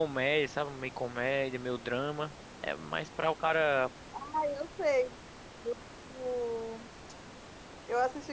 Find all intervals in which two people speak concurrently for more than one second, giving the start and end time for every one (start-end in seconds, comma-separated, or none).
none